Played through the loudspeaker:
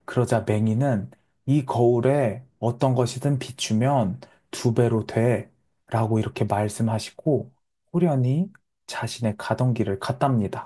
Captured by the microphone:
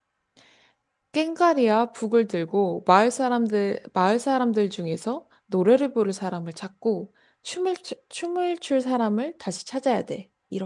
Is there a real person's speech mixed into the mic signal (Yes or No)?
Yes